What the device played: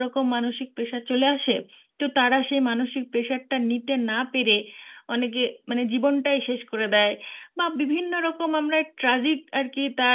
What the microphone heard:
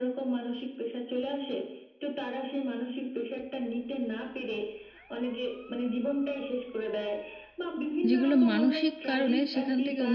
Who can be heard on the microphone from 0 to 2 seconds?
echo only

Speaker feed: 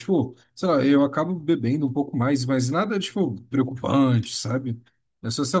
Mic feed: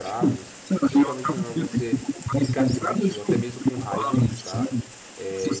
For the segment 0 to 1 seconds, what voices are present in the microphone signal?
both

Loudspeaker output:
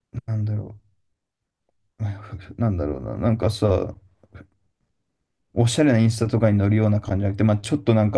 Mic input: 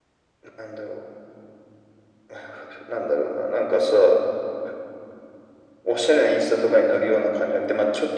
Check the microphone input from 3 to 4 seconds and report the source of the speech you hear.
echo only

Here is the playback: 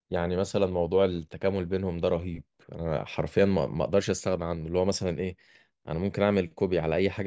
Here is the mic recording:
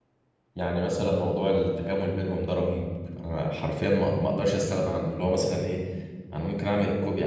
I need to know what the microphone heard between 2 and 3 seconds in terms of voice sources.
echo only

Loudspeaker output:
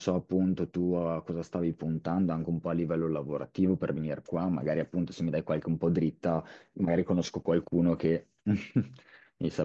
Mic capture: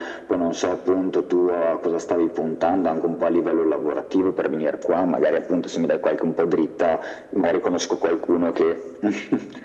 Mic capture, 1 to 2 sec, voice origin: echo only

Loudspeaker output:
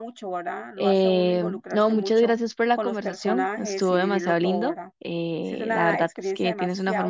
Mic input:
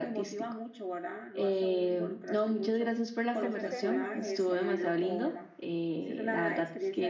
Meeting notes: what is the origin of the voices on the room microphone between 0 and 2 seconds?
echo only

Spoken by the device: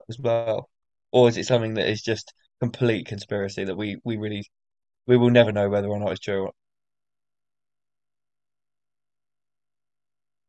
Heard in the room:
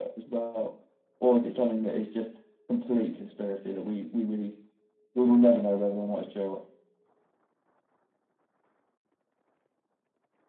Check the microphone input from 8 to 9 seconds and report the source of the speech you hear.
neither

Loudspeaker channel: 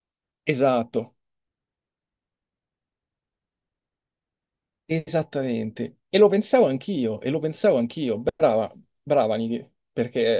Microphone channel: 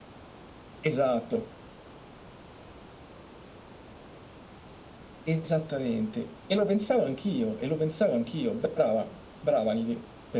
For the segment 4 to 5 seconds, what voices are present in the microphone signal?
neither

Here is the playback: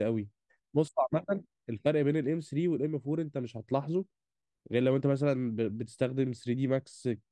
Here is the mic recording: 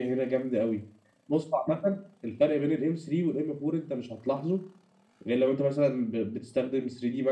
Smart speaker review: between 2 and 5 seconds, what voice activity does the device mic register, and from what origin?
echo only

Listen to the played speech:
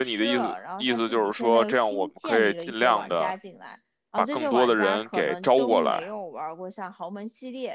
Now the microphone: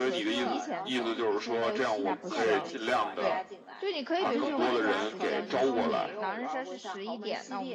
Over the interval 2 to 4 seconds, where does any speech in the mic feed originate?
both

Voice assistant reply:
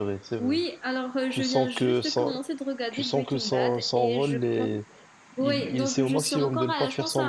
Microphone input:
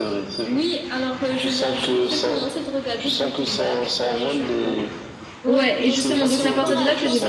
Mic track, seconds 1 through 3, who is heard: echo only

